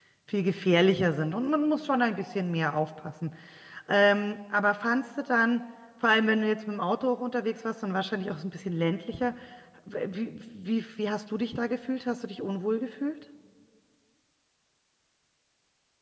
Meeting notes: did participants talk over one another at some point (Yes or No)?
No